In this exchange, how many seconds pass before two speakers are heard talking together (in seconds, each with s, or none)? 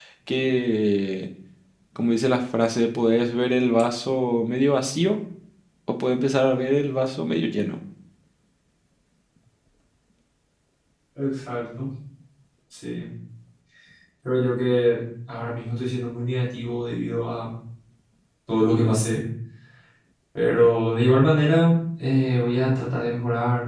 none